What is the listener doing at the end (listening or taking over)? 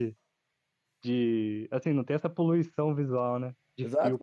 taking over